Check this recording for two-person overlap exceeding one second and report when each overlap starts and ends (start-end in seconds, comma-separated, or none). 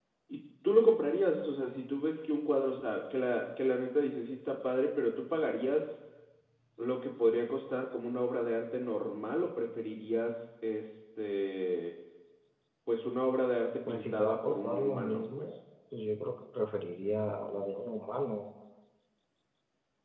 13.9-15.5